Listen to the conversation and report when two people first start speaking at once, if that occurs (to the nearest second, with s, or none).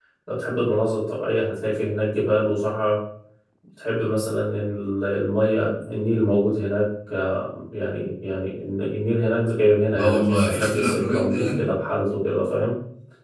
10 s